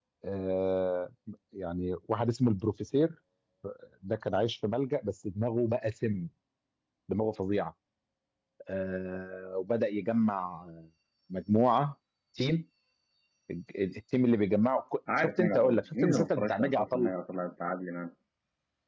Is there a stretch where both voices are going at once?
Yes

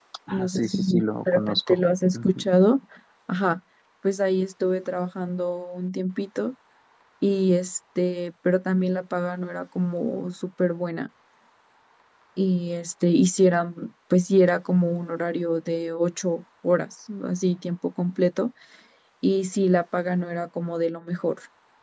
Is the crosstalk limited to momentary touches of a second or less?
No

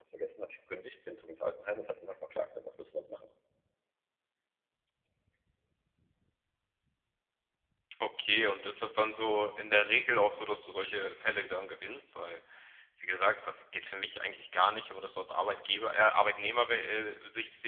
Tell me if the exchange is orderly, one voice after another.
Yes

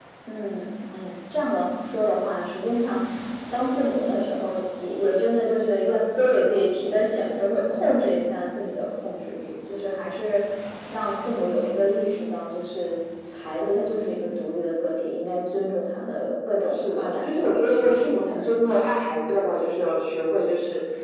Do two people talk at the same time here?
Yes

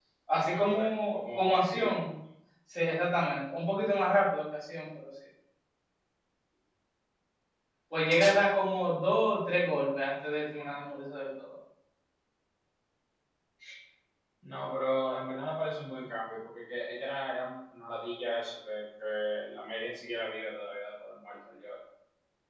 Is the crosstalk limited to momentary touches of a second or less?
No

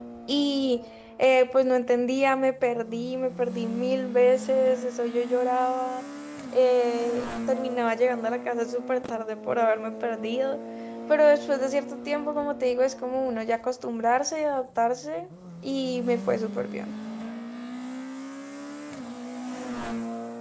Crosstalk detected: No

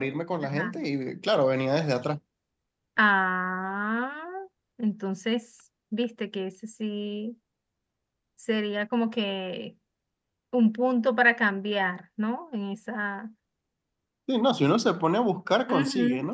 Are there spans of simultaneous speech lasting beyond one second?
No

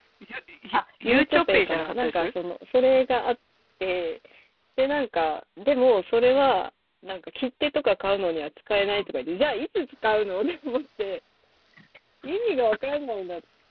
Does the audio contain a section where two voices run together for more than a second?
Yes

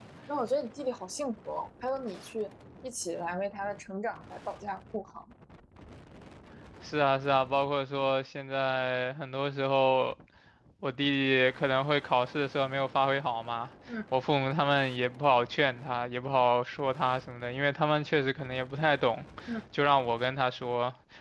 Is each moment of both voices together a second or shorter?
Yes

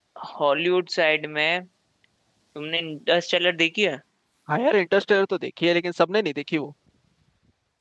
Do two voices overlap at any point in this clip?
No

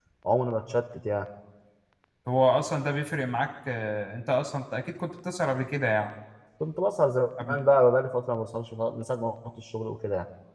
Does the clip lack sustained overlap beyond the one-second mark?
Yes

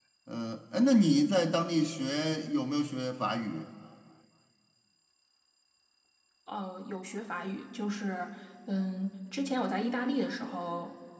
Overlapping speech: No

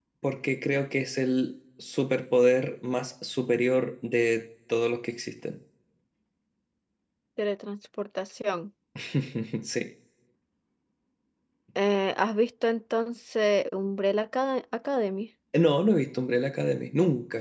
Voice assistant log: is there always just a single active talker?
Yes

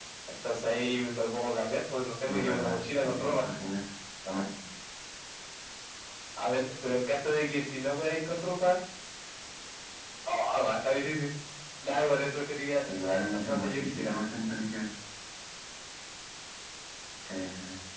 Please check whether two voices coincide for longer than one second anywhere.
Yes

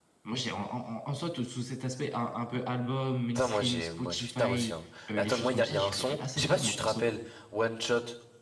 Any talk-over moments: Yes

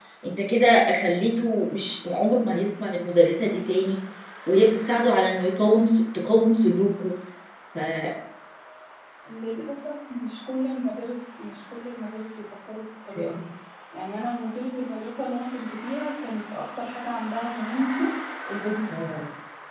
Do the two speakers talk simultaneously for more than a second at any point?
No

